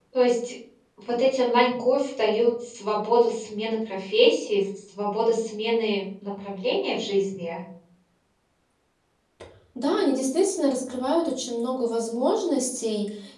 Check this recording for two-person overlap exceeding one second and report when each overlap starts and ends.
none

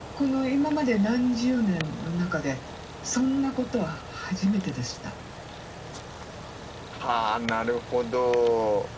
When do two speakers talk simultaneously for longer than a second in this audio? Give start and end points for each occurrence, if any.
none

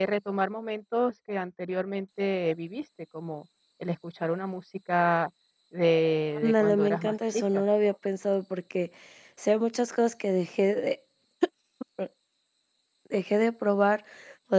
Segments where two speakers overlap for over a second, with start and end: 6.3-7.6

